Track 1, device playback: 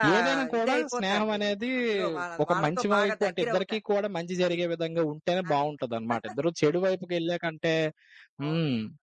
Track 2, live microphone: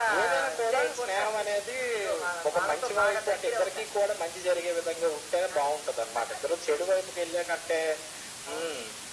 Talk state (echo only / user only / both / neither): echo only